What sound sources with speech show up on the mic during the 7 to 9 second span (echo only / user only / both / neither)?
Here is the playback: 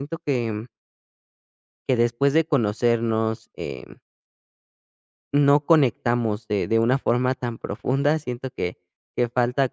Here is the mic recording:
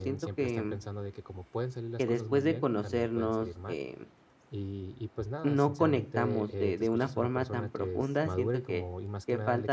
both